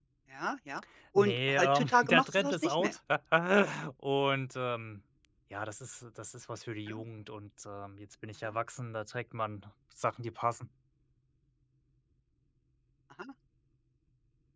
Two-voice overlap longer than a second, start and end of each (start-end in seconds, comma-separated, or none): 1.1-2.9